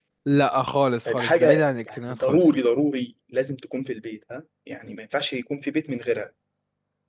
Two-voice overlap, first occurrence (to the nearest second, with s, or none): 1 s